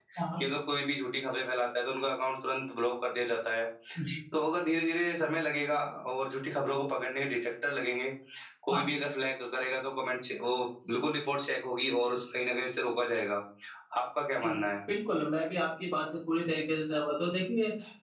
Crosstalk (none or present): none